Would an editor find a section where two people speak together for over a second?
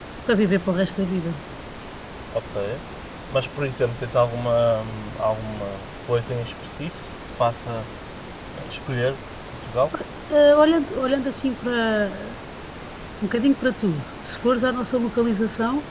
No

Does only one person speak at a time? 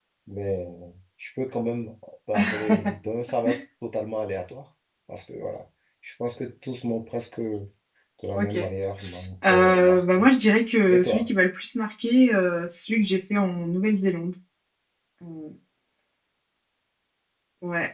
No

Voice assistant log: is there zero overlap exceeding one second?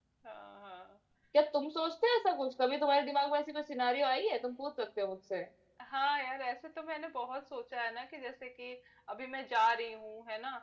Yes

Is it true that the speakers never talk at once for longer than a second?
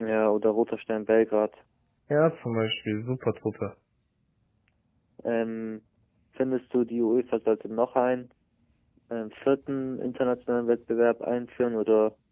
Yes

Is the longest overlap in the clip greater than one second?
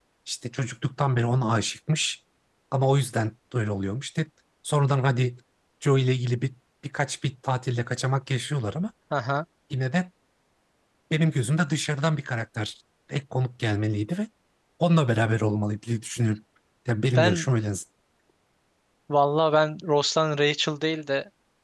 No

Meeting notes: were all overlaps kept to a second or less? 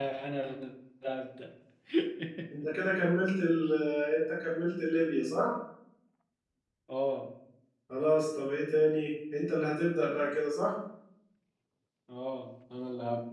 Yes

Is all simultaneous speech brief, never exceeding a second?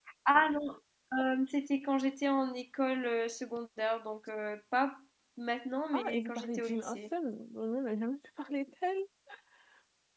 No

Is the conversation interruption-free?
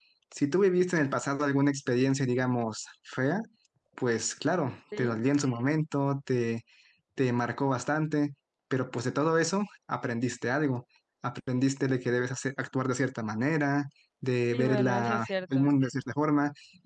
No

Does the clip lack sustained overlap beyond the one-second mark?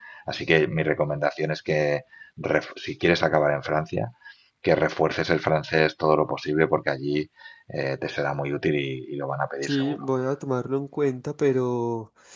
Yes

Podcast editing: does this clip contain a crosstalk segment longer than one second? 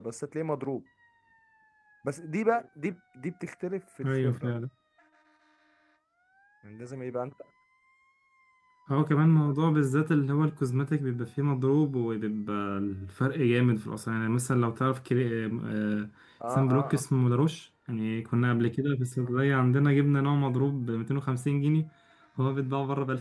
No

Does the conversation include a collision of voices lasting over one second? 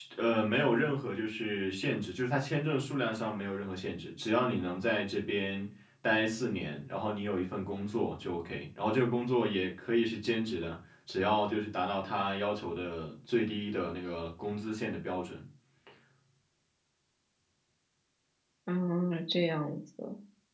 No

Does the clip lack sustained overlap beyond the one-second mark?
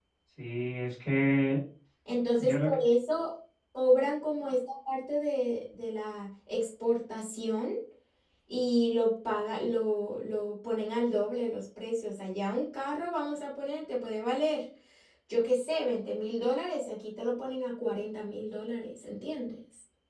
Yes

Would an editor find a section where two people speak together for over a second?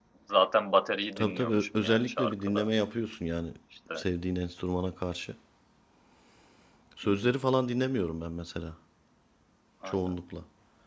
Yes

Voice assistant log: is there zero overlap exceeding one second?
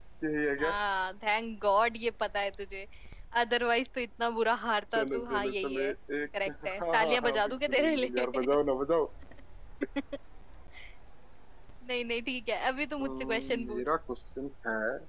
No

